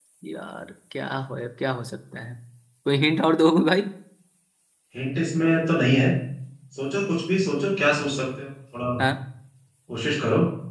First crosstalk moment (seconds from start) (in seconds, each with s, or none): none